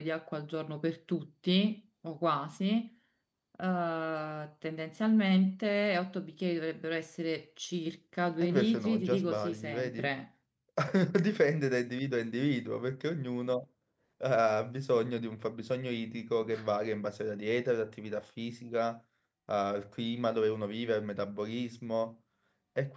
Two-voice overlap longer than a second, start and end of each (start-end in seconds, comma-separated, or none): 8.4-10.1